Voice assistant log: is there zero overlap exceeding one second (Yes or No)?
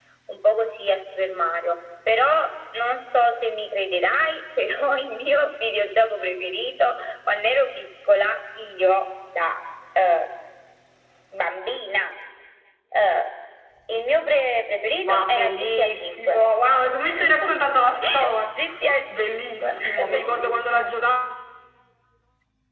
No